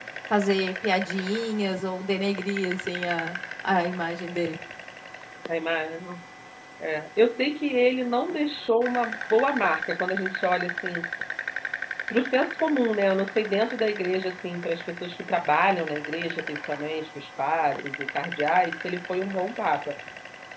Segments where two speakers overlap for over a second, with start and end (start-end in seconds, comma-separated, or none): none